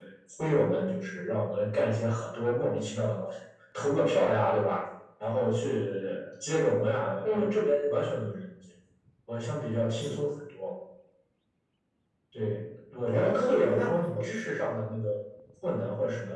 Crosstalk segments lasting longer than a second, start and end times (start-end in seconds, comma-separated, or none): 13.1-14.5